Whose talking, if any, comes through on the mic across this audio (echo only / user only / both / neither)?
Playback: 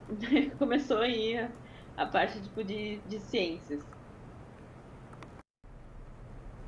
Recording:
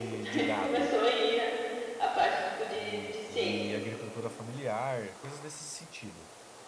both